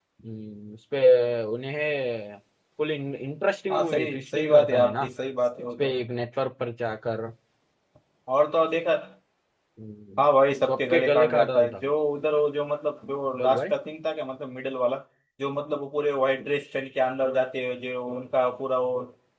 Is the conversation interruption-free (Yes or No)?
No